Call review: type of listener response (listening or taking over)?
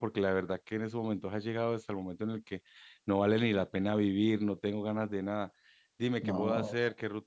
listening